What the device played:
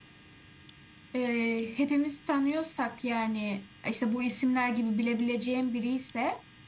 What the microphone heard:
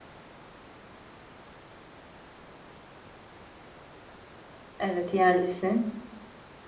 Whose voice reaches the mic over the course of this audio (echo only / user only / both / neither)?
user only